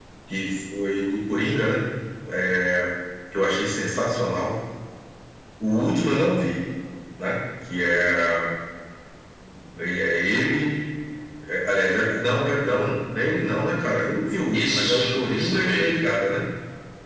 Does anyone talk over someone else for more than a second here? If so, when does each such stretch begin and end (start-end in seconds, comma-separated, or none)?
14.5-16.1